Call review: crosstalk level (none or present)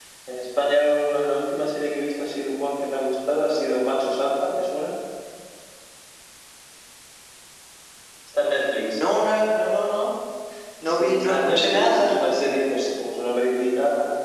present